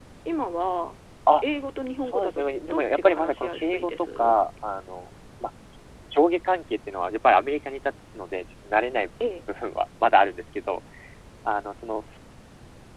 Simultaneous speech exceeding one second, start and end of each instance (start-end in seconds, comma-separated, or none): 2.0-4.3